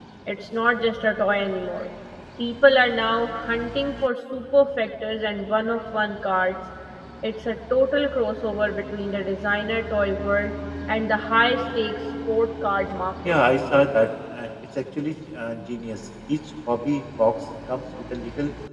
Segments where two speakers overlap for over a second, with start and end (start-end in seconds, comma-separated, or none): none